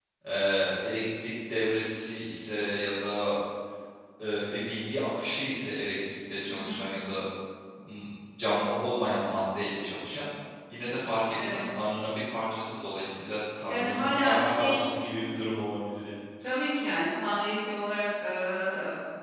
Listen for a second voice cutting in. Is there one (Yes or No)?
Yes